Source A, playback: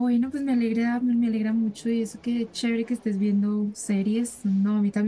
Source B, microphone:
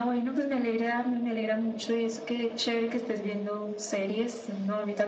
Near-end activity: none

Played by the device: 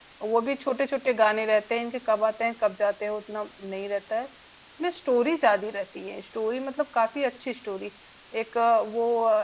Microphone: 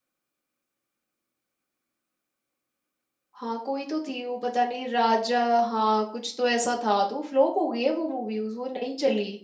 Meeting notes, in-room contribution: present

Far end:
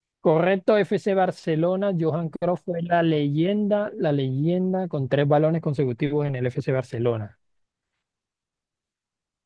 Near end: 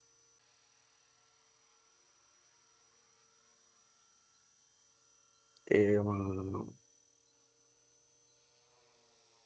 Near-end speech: present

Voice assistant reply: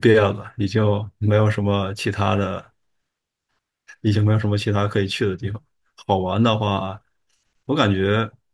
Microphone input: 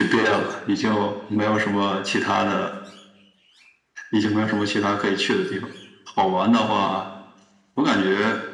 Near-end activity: none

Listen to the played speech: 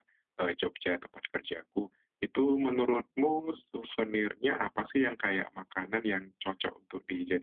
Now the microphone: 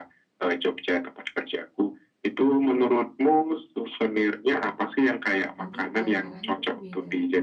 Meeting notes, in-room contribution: present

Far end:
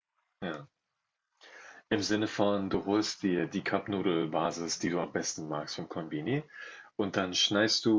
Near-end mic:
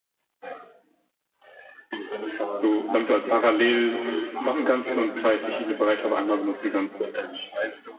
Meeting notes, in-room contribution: present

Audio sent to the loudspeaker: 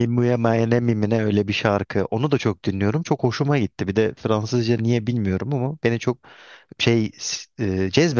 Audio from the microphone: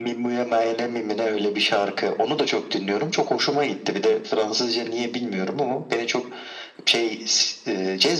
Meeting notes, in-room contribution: none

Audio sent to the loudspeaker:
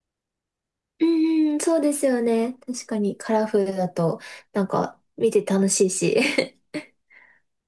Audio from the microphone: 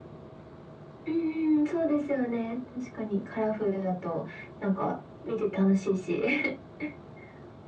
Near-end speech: none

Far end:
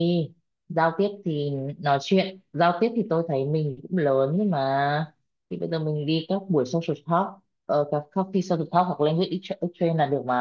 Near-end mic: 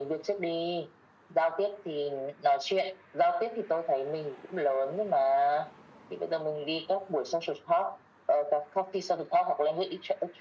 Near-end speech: none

